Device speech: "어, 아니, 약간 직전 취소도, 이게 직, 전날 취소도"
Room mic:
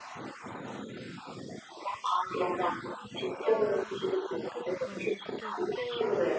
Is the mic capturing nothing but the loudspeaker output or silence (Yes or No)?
No